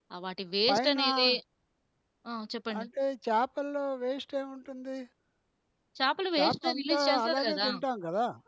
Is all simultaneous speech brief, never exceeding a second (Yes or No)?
No